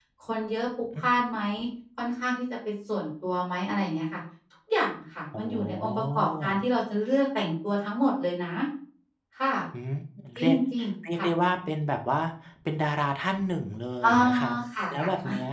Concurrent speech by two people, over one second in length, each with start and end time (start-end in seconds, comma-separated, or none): 5.4-6.6